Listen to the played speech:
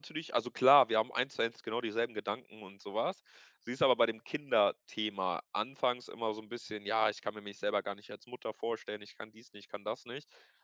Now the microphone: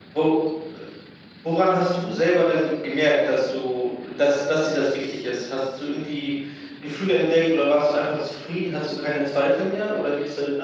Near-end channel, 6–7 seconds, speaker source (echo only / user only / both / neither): user only